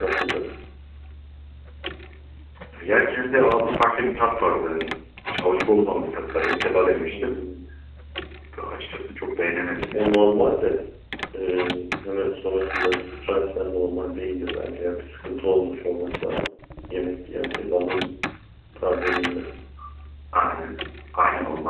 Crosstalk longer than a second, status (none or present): none